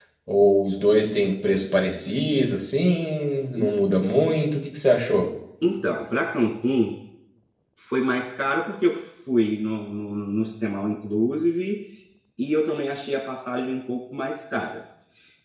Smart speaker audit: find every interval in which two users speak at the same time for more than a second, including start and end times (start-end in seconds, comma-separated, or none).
none